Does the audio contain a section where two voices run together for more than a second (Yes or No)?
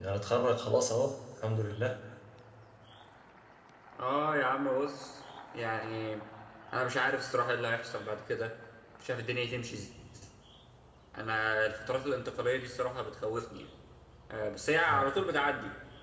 No